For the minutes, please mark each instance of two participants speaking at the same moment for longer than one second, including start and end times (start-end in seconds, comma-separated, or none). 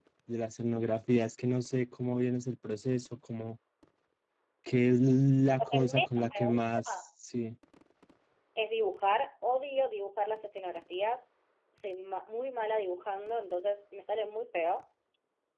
5.6-7.0